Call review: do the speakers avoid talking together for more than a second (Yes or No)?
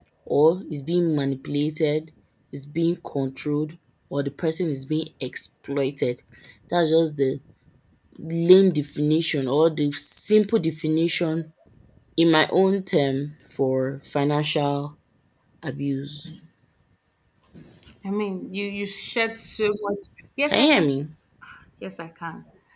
Yes